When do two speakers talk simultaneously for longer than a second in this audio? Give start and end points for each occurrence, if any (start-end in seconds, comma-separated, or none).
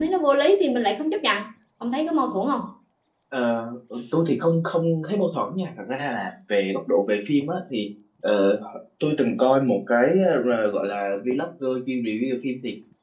none